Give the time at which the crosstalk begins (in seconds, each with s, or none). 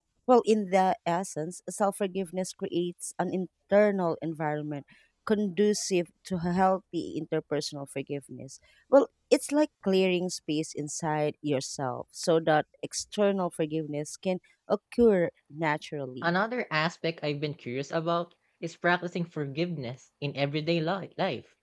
none